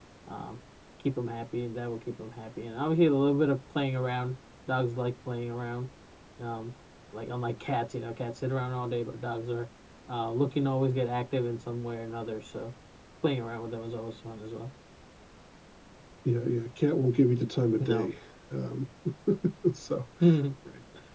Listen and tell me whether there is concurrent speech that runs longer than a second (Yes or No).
No